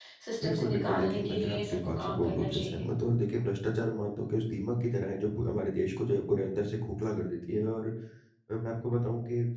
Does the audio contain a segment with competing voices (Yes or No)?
Yes